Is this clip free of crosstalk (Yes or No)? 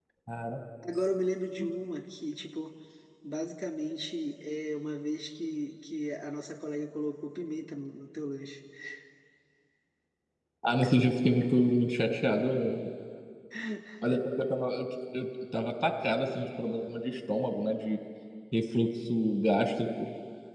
Yes